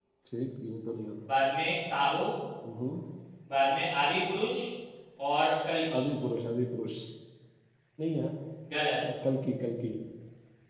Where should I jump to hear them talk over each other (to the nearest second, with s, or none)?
none